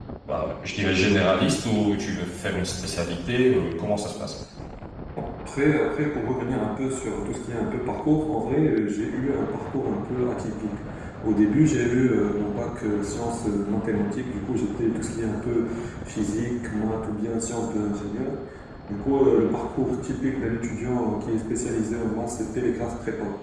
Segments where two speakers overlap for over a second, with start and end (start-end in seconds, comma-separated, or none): none